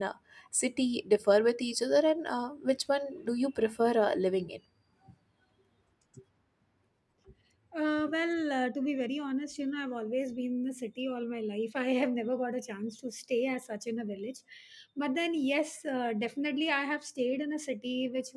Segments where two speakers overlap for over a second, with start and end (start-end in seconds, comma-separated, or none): none